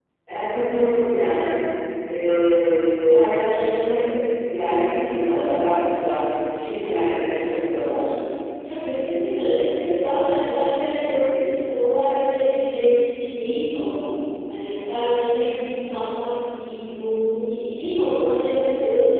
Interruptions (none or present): none